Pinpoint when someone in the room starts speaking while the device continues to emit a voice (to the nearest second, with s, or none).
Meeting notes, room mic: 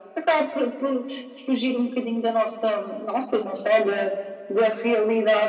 none